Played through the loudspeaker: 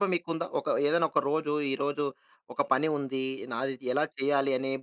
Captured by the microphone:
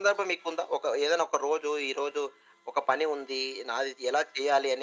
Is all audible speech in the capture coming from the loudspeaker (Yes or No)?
Yes